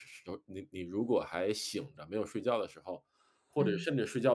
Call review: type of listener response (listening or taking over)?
listening